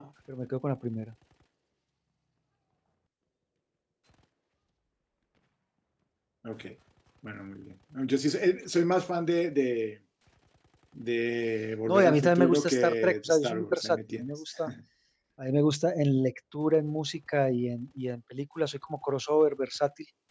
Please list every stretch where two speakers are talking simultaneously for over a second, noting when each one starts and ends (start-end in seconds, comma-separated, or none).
11.9-14.2